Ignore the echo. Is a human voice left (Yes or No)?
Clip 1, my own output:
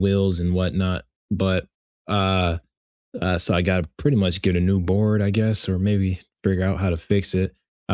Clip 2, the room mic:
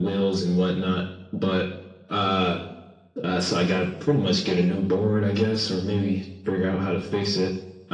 No